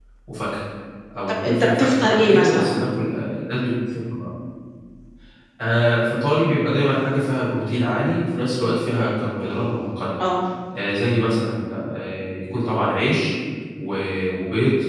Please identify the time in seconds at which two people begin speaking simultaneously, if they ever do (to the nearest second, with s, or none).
1 s